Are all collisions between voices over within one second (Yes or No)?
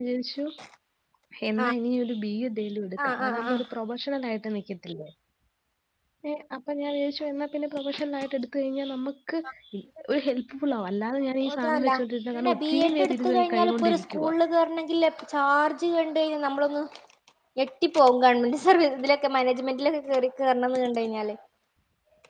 No